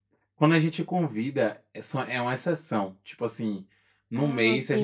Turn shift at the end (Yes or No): No